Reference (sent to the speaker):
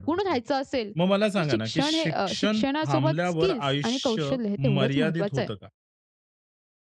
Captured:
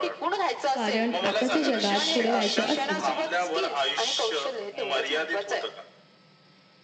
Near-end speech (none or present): present